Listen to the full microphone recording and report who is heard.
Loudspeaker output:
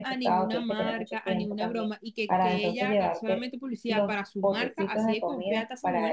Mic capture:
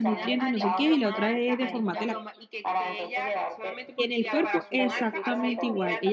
both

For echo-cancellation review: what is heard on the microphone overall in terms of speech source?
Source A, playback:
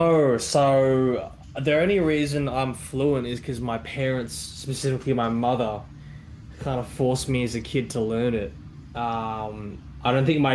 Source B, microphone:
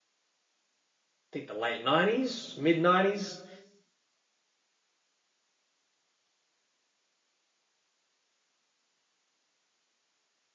user only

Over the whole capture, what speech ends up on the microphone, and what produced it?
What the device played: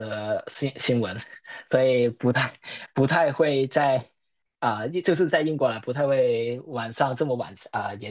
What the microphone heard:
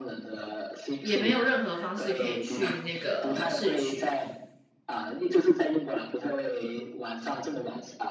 both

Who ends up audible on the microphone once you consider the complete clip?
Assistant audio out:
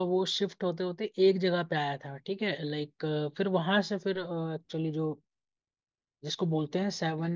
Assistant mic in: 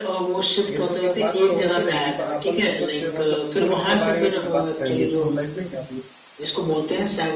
both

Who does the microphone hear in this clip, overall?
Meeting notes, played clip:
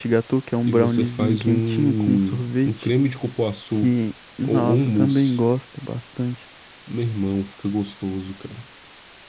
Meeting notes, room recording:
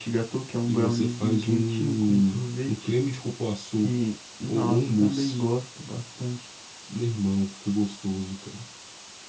echo only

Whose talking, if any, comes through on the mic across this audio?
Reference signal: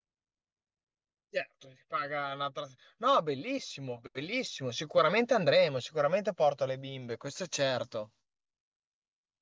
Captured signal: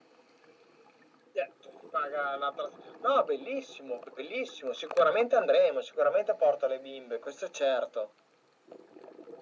echo only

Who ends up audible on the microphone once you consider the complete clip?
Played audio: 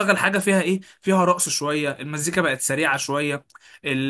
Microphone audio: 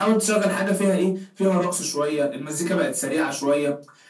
echo only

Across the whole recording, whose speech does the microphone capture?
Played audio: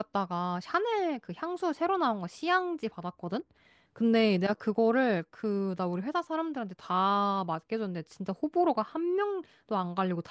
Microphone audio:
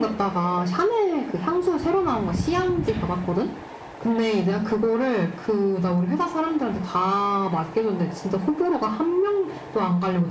echo only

